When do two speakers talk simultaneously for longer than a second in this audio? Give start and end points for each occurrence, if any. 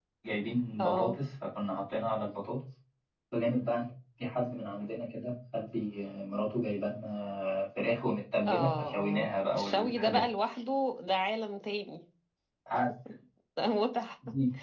8.5-10.2

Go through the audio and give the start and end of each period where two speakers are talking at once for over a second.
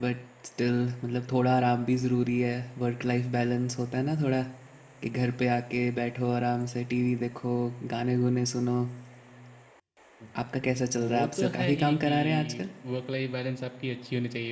11.0-12.6

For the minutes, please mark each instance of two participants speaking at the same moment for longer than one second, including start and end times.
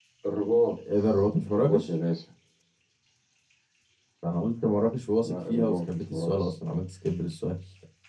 5.2-6.5

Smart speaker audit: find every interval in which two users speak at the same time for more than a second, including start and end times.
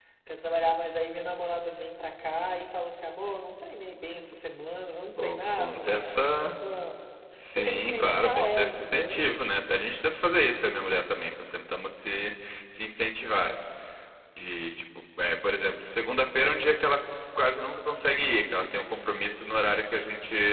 5.2-6.5, 7.6-9.3

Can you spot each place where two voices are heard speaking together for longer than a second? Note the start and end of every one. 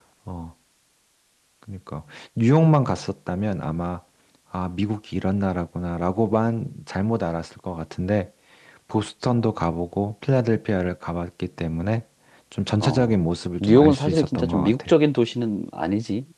13.6-14.9

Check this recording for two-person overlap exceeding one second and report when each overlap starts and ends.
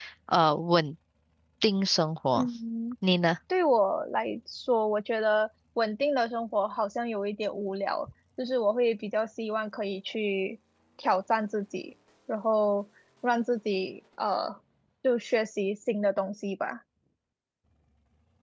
none

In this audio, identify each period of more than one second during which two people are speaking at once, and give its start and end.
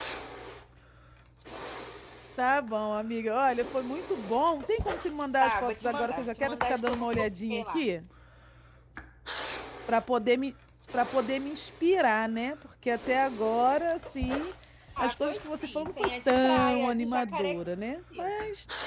5.4-7.8, 15.0-17.6

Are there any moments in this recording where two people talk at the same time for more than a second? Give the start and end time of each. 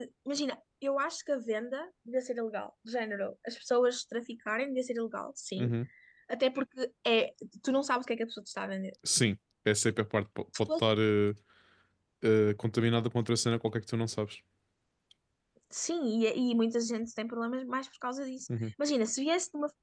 none

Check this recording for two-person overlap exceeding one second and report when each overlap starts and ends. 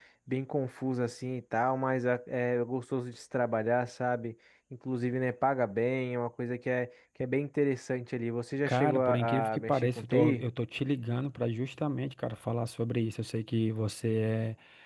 8.7-10.4

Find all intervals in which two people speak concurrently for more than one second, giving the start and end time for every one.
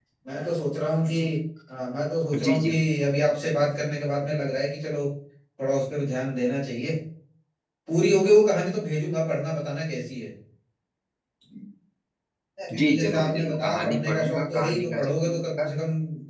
12.8-15.7

